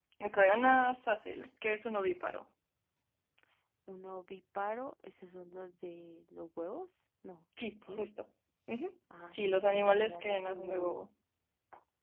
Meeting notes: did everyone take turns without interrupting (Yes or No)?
No